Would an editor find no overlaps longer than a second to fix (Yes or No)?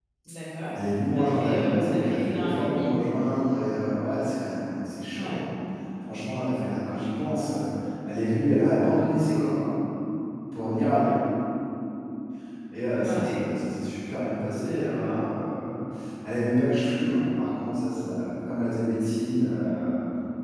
No